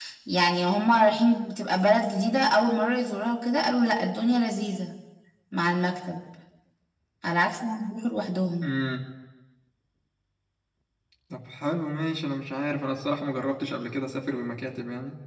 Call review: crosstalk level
none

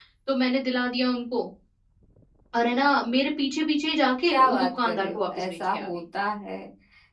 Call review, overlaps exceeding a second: present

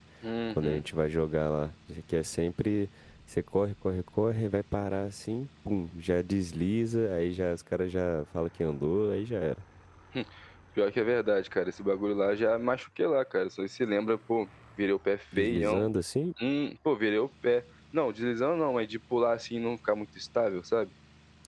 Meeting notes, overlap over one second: none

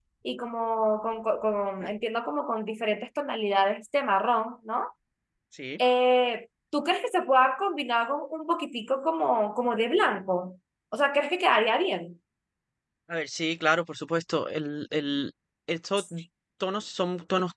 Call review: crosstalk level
none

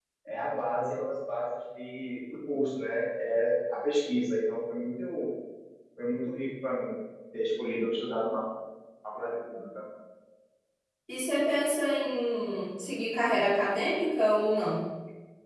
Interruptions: none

